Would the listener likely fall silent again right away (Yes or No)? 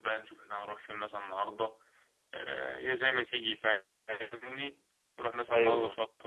Yes